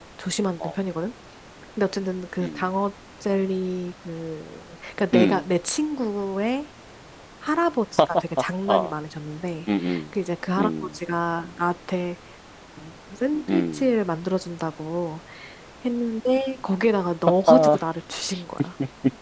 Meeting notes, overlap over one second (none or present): none